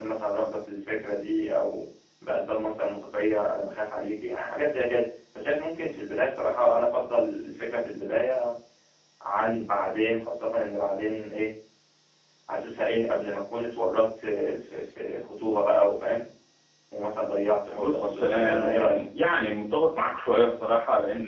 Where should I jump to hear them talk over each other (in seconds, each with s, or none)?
17.8 s